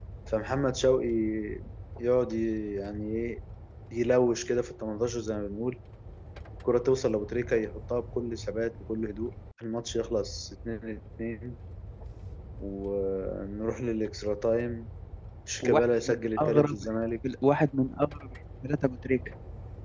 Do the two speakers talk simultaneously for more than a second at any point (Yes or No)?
Yes